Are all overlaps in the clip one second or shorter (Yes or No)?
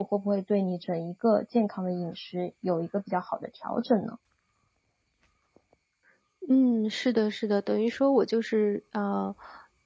Yes